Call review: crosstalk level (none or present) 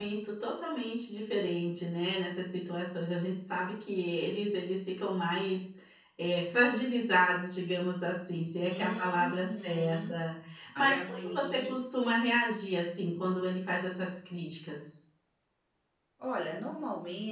present